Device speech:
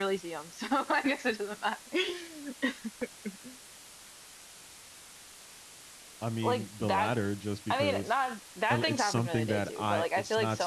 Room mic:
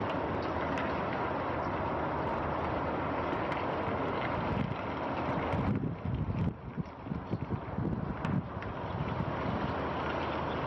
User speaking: No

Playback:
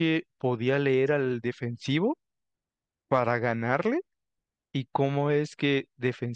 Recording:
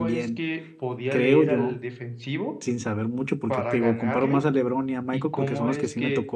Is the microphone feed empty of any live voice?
No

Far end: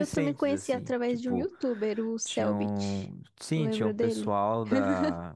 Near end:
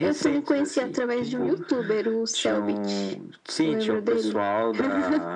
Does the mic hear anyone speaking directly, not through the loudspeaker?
Yes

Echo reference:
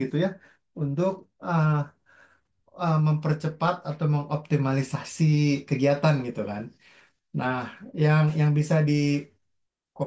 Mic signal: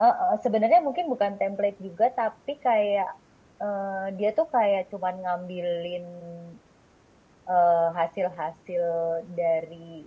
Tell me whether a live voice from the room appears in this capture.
Yes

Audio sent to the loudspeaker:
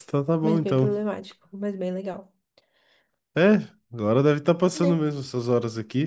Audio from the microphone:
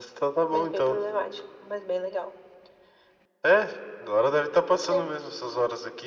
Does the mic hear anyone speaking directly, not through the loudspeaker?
No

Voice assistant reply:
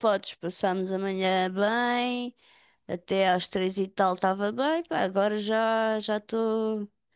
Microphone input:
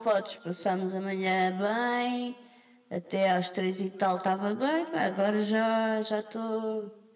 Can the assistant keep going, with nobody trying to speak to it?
Yes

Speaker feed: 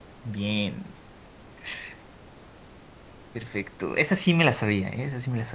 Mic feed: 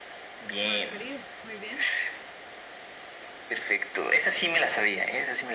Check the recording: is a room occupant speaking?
Yes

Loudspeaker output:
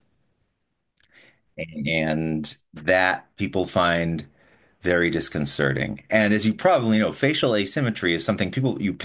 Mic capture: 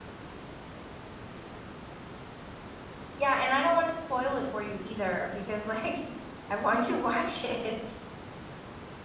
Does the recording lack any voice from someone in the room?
No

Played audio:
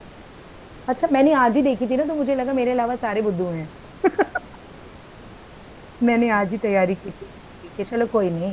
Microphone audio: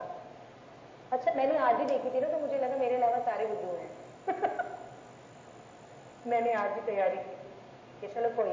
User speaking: No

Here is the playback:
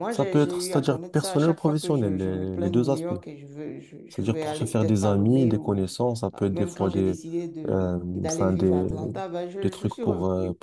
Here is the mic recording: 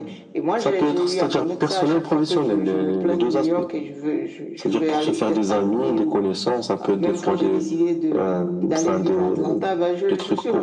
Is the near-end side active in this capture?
No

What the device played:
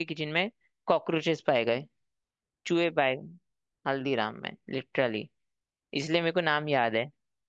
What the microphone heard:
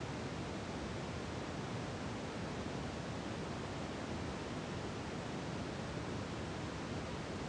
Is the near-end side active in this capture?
No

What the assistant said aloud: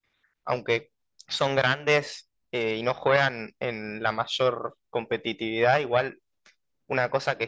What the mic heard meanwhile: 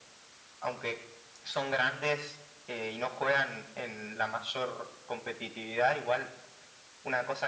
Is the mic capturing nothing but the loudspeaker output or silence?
Yes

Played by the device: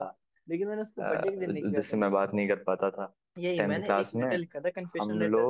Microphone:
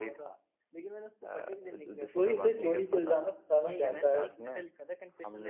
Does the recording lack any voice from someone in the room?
No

